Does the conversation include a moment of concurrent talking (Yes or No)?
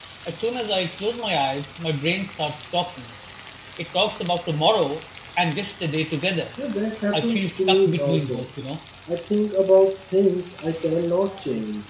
Yes